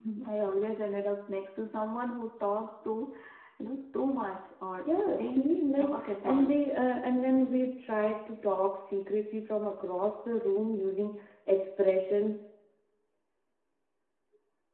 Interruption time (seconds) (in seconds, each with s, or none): 4.9 s